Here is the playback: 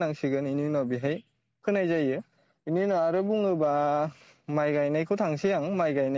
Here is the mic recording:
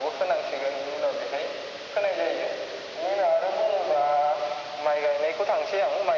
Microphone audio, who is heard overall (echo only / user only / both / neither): echo only